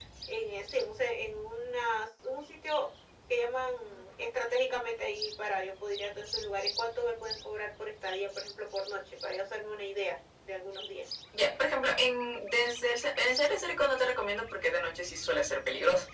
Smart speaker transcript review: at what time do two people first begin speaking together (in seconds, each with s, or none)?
none